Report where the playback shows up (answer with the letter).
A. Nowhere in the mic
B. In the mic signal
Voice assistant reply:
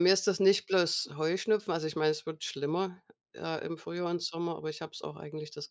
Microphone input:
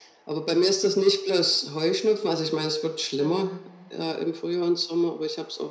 B